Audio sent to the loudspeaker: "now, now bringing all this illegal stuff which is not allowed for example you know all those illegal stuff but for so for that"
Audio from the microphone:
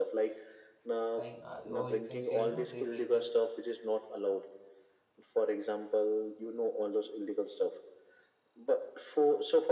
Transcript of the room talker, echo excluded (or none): like uh, or you can say you know they make that